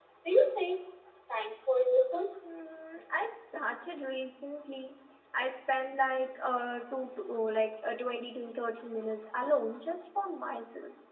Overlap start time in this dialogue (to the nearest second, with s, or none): none